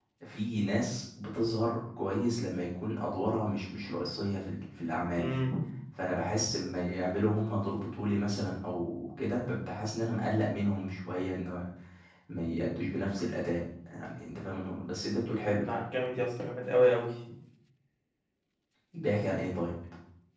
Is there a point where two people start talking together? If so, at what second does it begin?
none

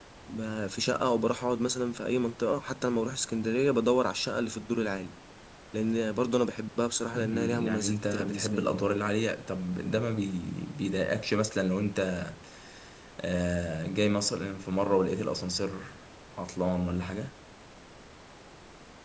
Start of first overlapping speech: 7.1 s

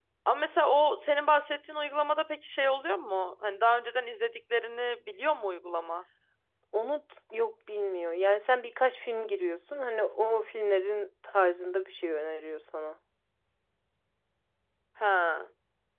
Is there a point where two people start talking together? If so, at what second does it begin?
none

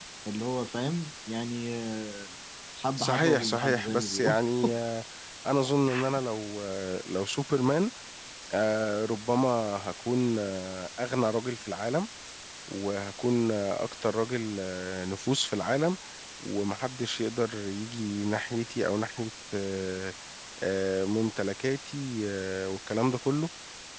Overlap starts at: 3.0 s

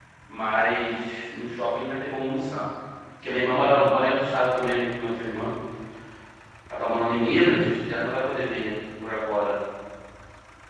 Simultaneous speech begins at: none

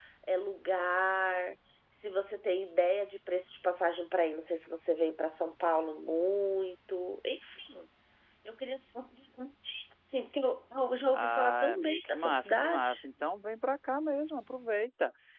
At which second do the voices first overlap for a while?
11.1 s

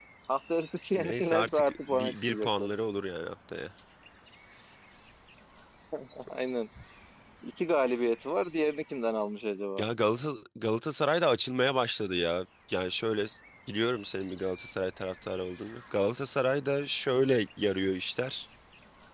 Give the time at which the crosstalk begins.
1.0 s

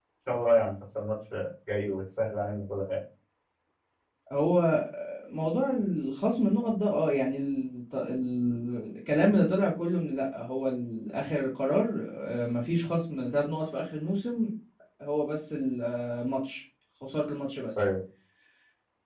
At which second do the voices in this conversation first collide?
none

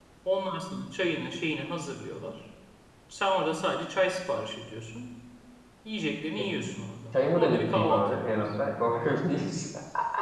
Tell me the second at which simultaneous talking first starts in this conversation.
7.1 s

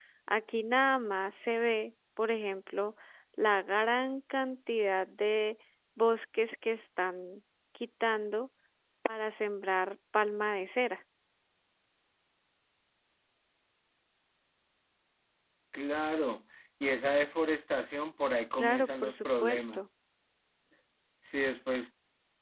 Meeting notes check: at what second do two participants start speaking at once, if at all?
18.6 s

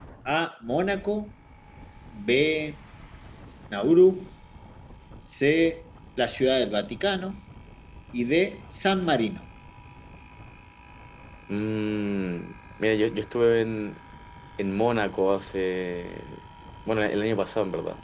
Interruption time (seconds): none

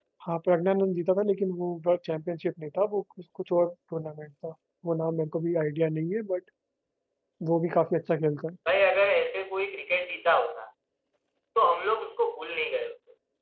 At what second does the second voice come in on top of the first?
none

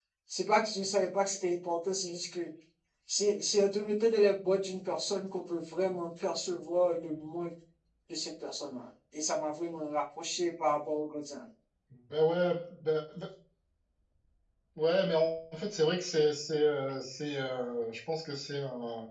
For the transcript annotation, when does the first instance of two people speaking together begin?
none

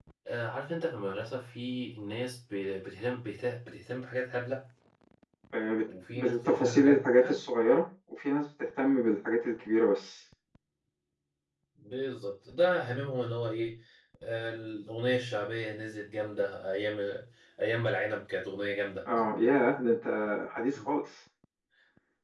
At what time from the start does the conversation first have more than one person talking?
6.1 s

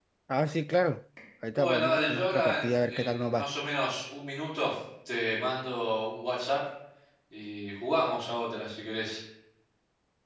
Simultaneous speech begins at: 1.6 s

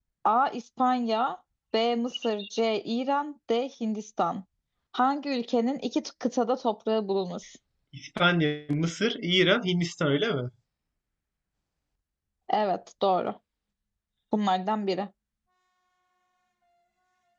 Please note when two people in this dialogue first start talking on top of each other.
none

